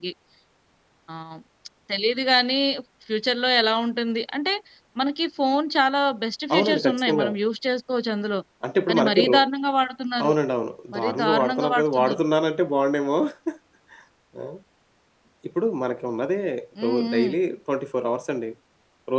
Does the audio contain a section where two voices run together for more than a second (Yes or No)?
Yes